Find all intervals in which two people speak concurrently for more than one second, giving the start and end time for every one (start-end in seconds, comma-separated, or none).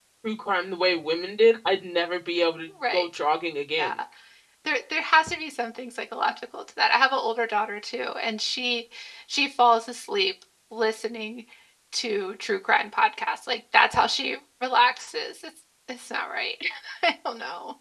none